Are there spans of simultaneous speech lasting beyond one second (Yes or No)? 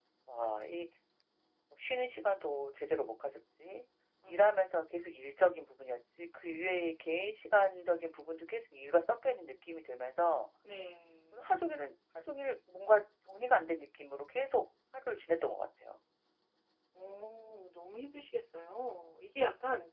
No